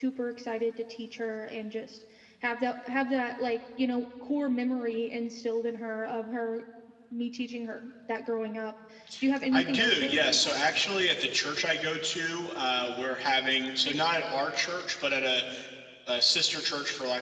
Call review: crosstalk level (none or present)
present